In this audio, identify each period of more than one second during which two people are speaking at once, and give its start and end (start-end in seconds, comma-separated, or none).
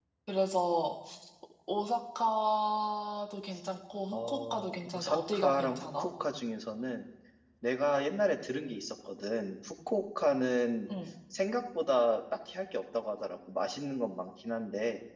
4.1-6.1